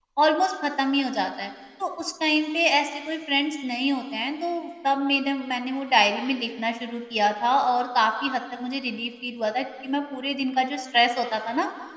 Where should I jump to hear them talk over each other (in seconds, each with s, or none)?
none